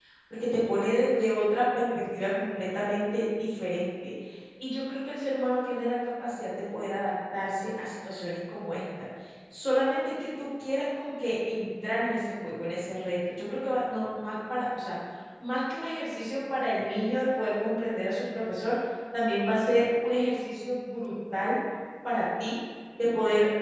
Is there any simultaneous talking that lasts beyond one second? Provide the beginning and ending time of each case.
none

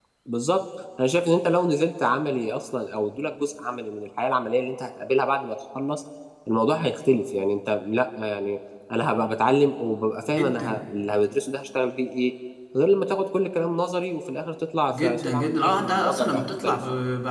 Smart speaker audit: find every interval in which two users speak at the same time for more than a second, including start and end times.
14.9-16.8

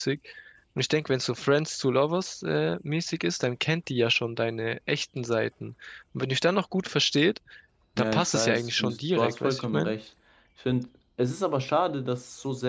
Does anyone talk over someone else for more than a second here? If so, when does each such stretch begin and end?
8.0-9.9

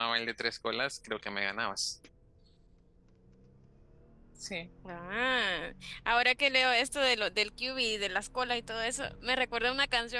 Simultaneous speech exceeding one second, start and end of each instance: none

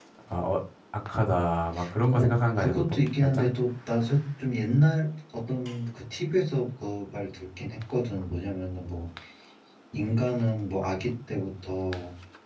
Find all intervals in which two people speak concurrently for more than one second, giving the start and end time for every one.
2.1-3.5

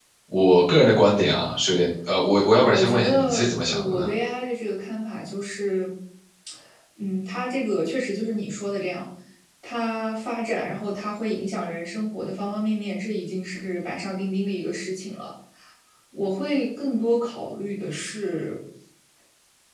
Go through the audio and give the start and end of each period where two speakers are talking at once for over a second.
2.6-4.1

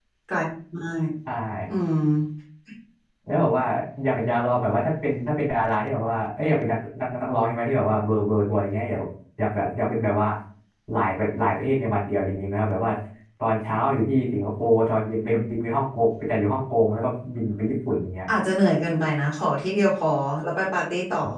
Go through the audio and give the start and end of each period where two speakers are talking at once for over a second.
none

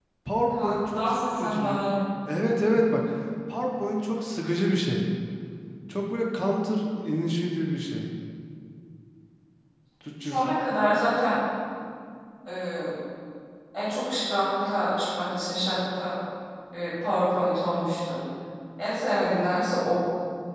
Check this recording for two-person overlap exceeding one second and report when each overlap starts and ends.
0.5-1.8

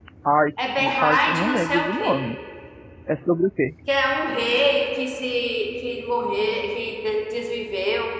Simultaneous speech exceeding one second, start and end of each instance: 0.6-2.2

